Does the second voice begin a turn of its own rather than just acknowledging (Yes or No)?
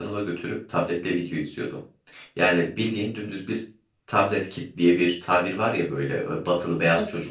No